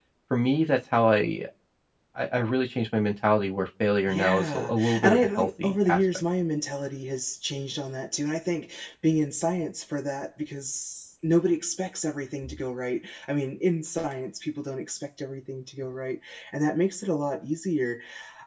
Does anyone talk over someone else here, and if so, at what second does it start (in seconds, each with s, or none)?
4.1 s